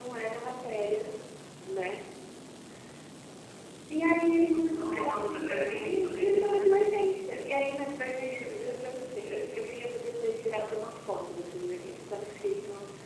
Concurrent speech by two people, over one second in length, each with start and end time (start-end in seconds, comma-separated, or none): 4.7-6.7